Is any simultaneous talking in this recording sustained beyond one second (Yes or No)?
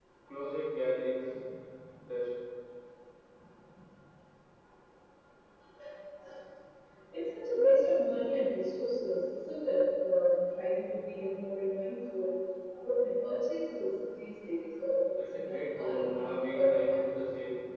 Yes